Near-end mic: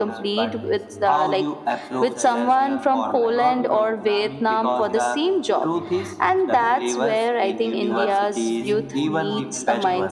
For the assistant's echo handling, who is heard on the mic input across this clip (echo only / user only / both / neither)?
both